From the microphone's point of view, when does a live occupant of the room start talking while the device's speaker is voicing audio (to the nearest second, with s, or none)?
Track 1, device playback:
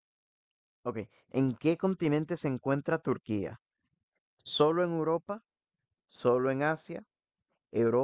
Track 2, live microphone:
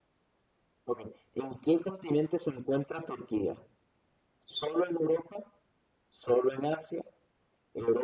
none